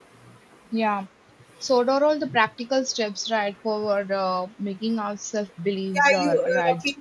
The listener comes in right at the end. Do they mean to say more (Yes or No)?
Yes